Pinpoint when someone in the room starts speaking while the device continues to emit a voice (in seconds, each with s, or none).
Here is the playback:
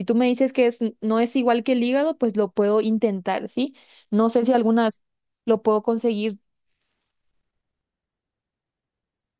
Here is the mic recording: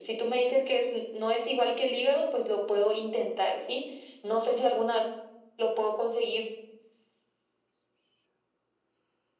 none